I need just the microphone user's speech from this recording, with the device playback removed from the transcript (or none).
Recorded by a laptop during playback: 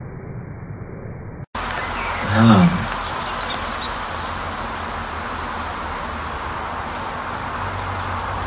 हां.